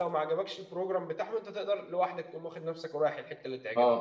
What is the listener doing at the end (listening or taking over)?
taking over